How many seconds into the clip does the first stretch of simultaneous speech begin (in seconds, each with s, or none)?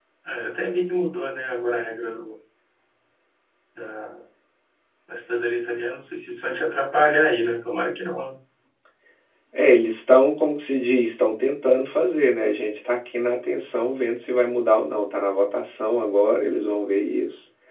none